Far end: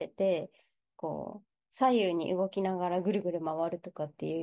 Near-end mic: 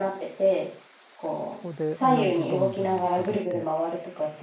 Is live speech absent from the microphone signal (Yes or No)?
No